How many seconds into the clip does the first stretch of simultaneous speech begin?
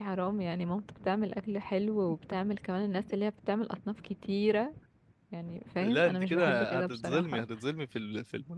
6 s

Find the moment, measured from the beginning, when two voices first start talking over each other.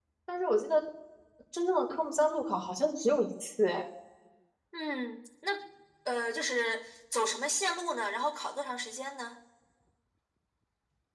none

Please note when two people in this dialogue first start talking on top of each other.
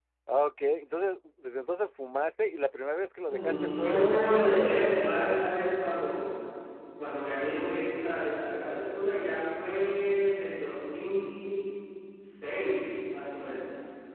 3 s

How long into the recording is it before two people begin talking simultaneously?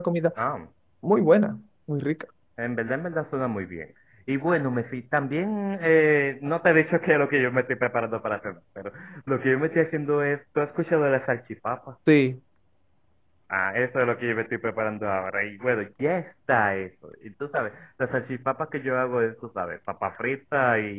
none

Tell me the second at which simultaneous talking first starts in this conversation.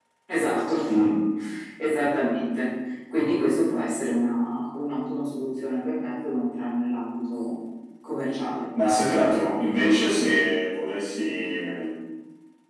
none

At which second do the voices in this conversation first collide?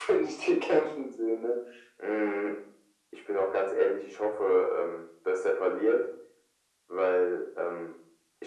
none

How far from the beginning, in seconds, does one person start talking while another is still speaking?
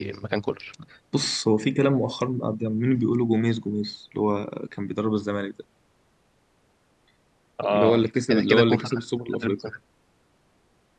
8 s

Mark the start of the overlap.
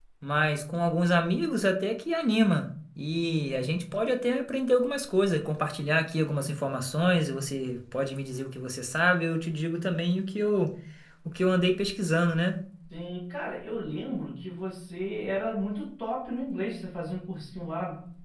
none

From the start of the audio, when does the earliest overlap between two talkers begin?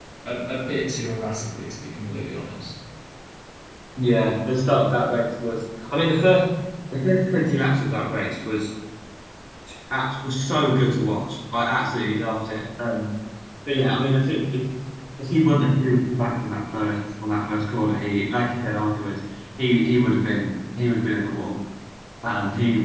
none

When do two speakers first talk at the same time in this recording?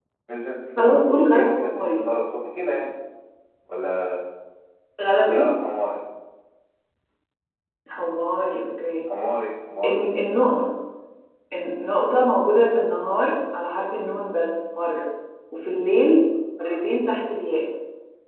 1 s

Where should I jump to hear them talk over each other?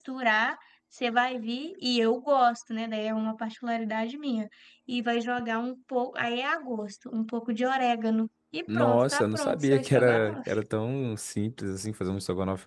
9 s

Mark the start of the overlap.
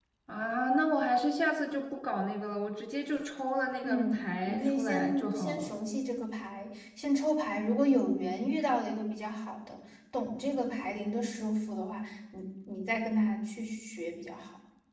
4 s

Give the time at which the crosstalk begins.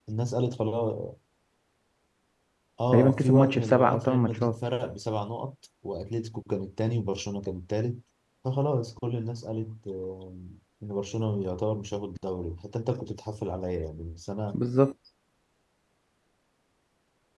3 s

